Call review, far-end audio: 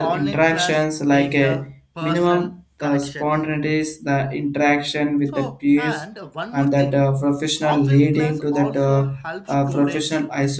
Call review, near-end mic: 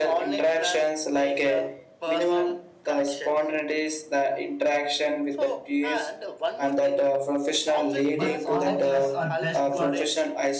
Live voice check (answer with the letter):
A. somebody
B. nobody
A